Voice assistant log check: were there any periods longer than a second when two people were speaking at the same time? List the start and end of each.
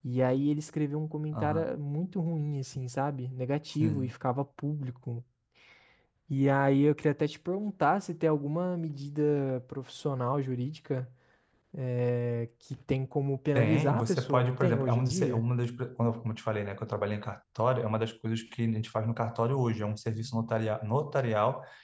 13.6-15.4

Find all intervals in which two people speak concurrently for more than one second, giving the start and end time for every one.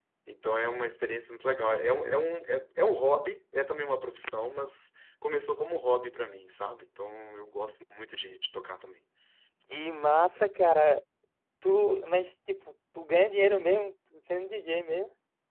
none

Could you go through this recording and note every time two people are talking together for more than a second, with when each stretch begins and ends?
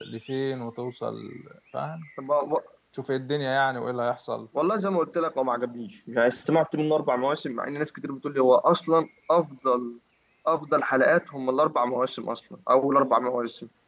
none

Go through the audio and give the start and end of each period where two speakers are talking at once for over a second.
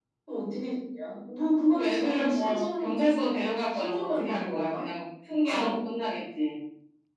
1.7-4.8

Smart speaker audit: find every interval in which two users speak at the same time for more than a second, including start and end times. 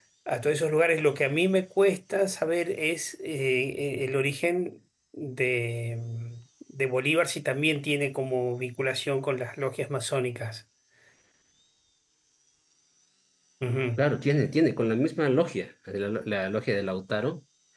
none

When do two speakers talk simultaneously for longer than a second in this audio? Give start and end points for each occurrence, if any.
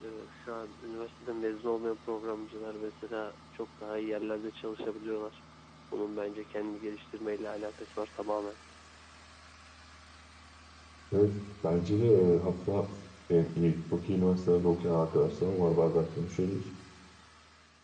none

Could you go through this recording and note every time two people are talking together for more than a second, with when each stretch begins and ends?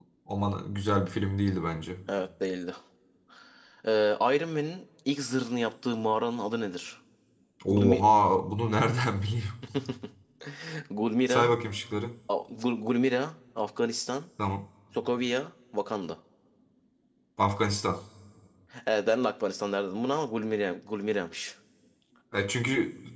none

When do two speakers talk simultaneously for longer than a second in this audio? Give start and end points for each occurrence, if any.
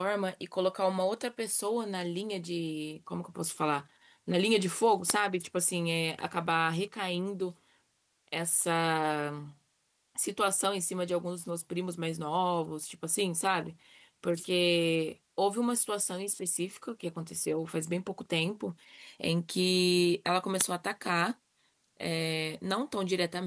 none

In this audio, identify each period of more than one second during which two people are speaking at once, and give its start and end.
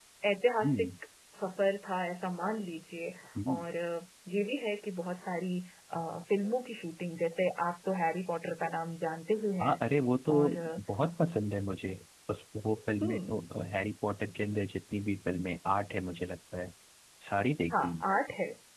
none

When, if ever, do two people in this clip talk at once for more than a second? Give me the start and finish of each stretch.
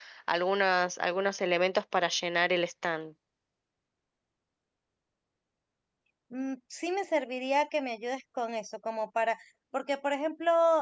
none

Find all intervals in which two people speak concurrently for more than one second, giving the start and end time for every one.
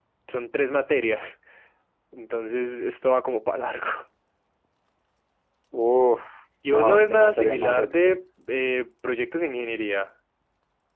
6.7-8.2

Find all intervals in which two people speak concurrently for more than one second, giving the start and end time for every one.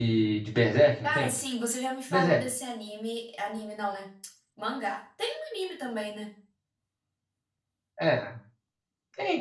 none

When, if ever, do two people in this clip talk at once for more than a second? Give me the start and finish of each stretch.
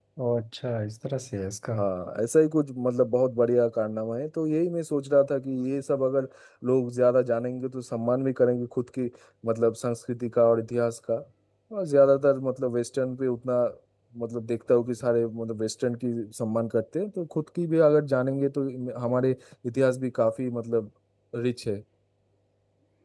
none

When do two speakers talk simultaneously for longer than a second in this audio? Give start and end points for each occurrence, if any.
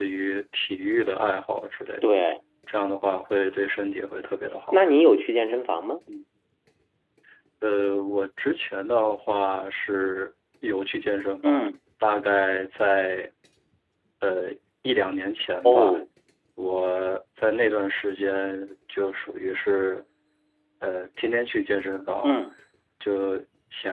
none

